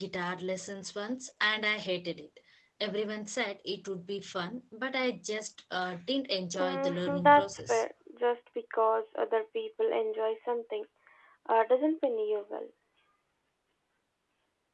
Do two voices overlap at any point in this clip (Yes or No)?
Yes